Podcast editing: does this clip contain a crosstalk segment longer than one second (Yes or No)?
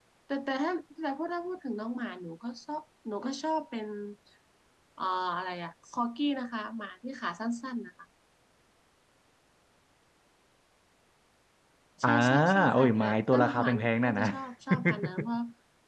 Yes